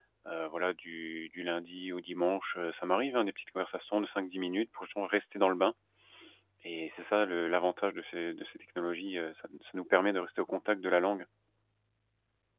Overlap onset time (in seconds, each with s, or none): none